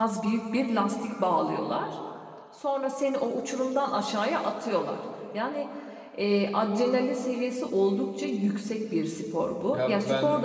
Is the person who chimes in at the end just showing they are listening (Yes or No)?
Yes